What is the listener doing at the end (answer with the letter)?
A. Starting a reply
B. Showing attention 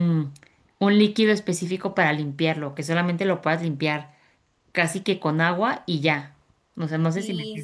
A